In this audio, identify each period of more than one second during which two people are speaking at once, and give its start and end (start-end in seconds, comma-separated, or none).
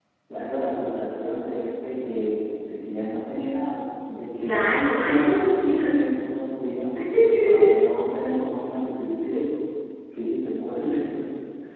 4.4-6.0